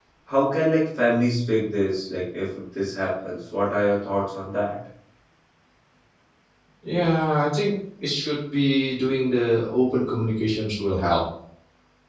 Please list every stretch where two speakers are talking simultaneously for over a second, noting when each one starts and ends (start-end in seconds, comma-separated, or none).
none